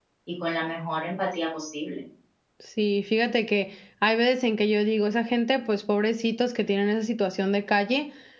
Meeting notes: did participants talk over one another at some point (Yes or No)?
No